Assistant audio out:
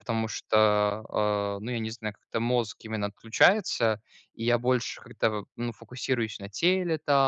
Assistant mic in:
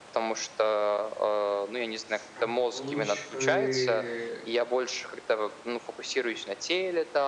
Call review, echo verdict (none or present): present